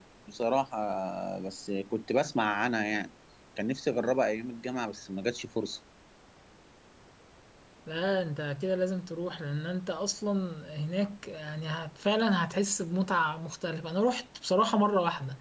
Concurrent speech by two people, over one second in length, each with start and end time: none

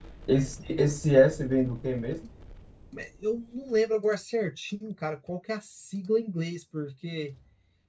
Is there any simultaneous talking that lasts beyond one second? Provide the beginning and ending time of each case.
none

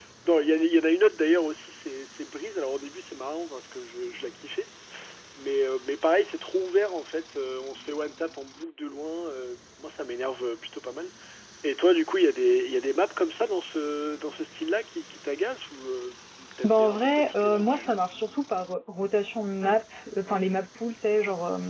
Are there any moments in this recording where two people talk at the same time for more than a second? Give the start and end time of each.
16.6-17.9

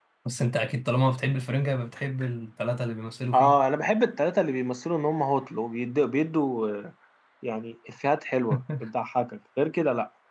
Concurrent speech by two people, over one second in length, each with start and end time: none

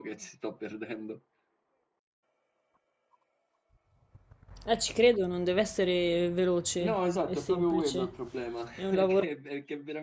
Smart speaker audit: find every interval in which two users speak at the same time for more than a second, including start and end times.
6.8-8.1

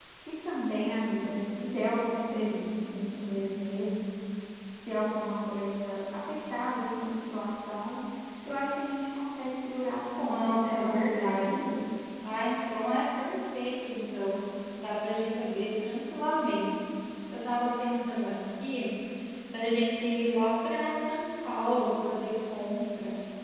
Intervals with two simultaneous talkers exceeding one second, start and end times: 10.2-11.5

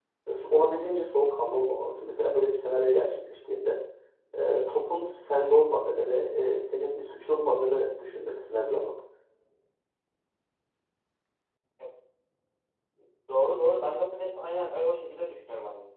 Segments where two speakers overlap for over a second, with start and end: none

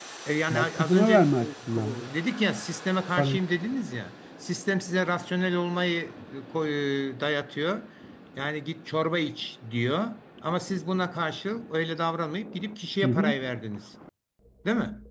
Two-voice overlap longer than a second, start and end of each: 0.5-2.0

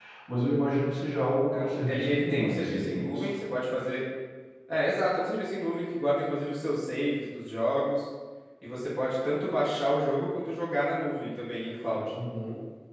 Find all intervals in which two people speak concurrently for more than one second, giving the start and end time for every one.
1.5-3.3

